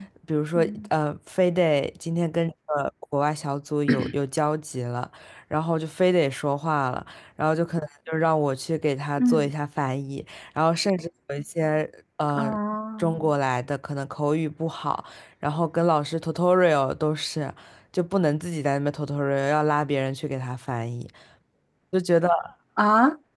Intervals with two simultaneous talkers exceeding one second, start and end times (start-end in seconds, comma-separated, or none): none